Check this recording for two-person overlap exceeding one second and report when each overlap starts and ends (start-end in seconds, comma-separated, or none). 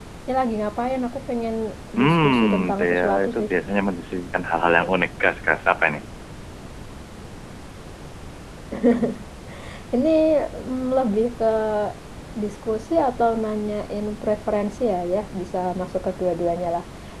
2.0-3.4